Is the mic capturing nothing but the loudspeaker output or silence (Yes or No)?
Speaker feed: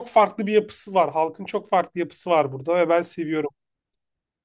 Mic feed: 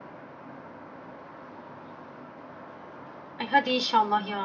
No